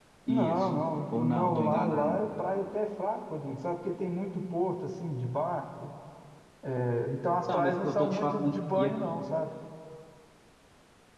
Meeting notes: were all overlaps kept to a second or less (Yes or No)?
No